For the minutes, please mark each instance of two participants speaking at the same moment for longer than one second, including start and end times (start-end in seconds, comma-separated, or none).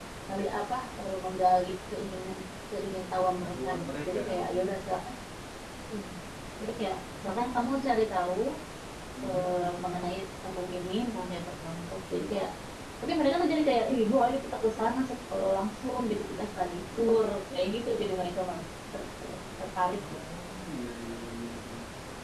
3.4-4.7